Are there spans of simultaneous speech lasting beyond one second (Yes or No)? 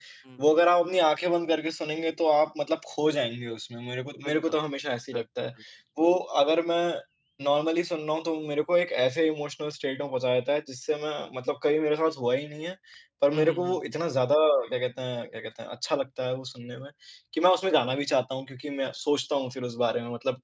No